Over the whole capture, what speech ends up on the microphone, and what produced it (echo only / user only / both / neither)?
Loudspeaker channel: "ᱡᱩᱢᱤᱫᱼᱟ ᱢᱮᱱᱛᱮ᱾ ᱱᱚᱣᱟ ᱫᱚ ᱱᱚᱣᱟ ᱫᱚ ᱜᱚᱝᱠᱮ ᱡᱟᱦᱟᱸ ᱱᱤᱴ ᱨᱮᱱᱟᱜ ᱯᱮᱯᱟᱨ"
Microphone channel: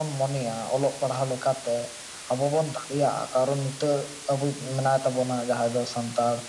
user only